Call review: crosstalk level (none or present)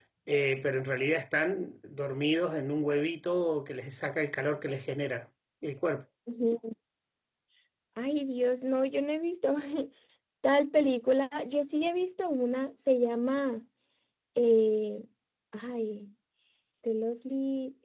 none